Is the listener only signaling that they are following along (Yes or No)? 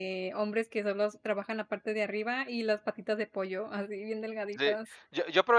No